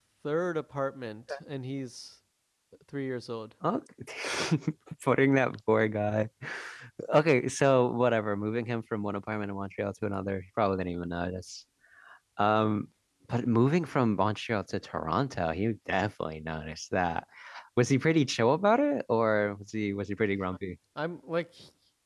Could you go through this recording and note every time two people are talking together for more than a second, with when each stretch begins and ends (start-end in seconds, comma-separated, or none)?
none